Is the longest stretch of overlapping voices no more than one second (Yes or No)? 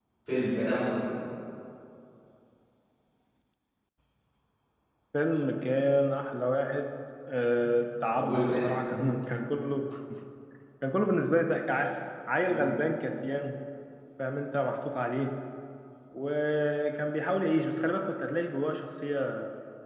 Yes